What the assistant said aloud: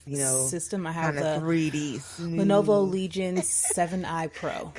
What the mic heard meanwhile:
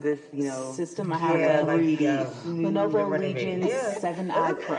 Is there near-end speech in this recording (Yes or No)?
Yes